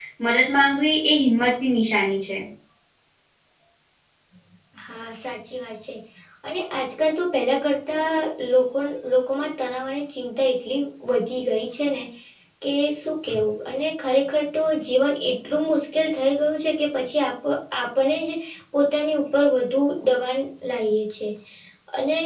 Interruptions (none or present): none